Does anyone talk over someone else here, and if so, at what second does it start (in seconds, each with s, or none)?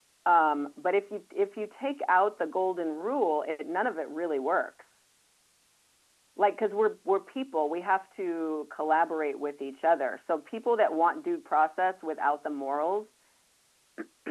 none